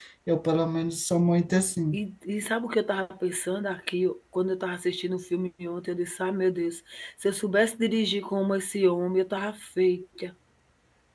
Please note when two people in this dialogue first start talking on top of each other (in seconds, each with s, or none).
none